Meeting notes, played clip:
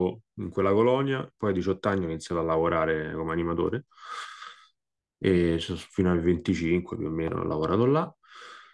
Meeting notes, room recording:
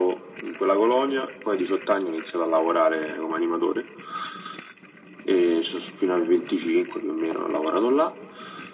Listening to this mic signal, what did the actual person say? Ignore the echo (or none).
none